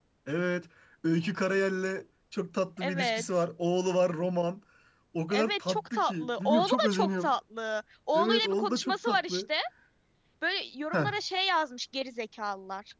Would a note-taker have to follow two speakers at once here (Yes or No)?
Yes